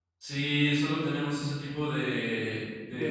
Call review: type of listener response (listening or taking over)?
listening